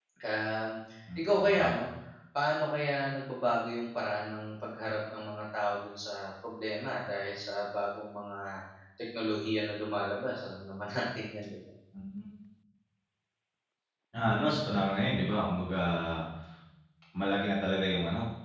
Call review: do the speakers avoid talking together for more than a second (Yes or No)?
Yes